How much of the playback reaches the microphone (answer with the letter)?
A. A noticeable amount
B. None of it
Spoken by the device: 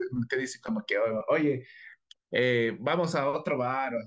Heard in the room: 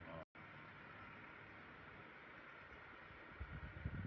B